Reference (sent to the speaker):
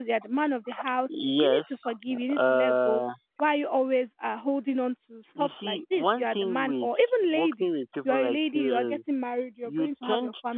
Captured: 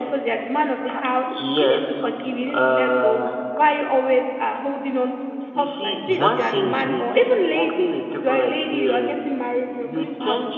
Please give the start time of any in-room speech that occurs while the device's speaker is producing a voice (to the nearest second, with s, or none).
6 s